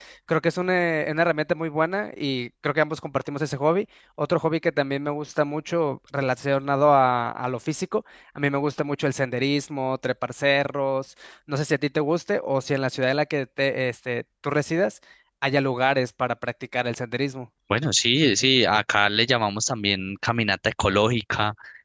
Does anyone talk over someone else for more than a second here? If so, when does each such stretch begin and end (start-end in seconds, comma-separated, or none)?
none